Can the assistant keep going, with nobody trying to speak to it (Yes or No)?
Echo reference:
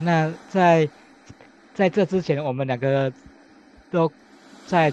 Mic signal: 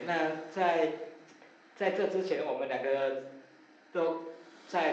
Yes